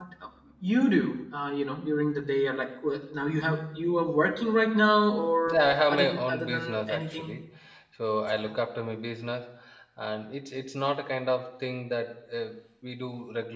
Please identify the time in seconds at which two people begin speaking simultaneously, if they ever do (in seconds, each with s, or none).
5.5 s